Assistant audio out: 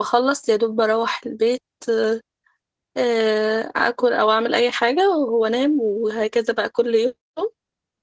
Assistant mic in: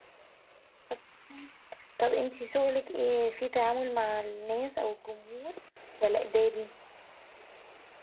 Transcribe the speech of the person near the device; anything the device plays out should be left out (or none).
طب تمام. طب انتي شغلك ايه في تعامل مع الناس او الجمهور ولا إداري